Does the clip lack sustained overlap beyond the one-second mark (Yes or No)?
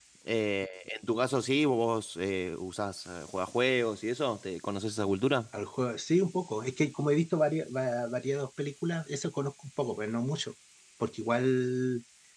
Yes